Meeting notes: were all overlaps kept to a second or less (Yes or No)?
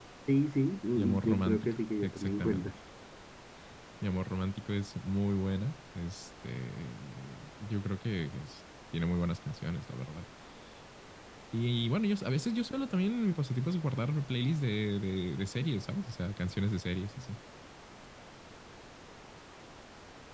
No